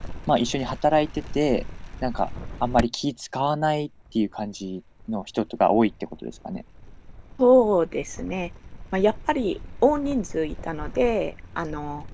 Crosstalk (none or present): none